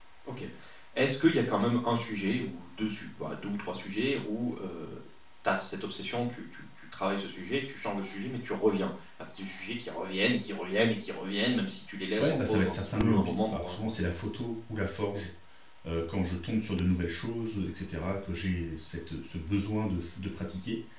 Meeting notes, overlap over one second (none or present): present